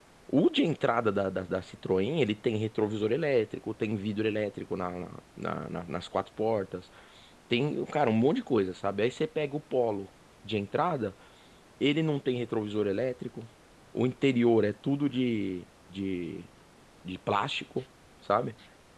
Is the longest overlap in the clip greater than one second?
No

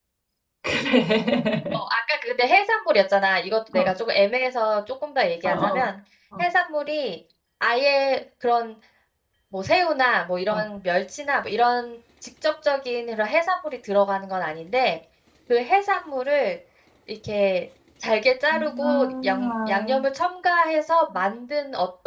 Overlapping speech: Yes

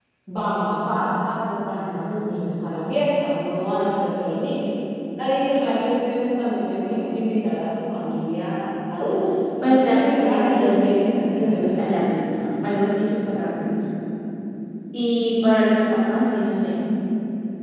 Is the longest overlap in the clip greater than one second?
Yes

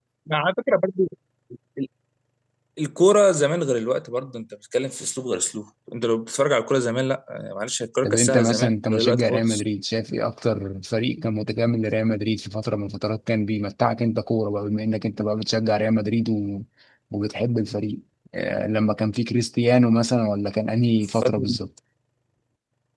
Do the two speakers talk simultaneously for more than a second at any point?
Yes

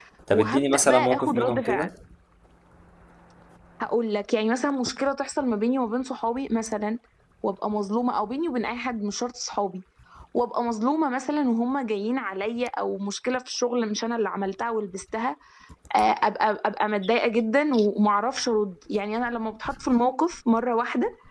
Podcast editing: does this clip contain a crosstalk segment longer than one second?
Yes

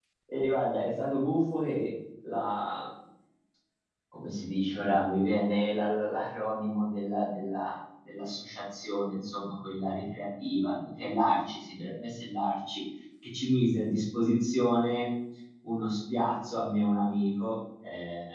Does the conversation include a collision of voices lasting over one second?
No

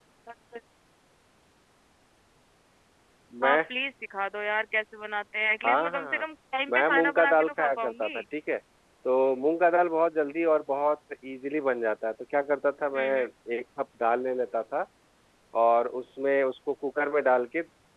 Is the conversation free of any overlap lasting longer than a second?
No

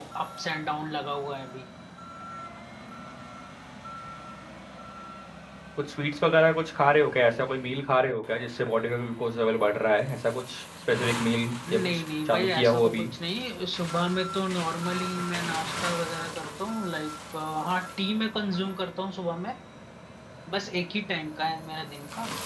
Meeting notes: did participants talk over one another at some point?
Yes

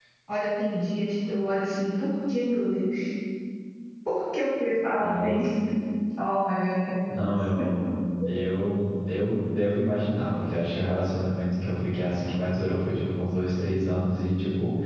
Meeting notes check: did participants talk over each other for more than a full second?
No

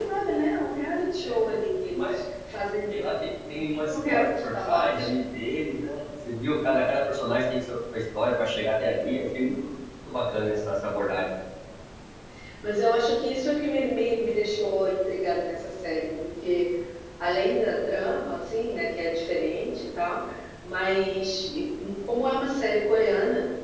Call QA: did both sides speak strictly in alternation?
No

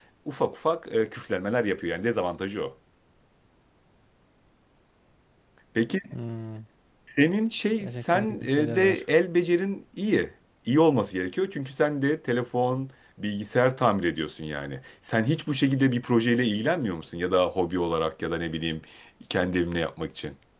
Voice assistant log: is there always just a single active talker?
No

